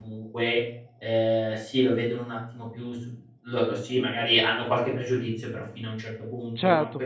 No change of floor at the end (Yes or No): Yes